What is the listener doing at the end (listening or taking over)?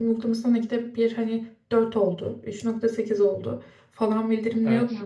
listening